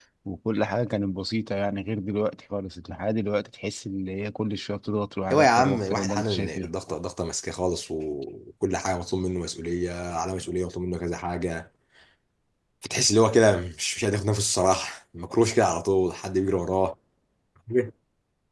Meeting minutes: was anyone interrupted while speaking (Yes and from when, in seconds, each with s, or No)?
Yes, from 5.3 s